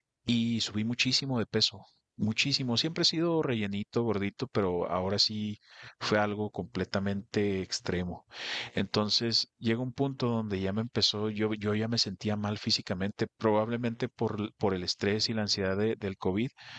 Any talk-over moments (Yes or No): No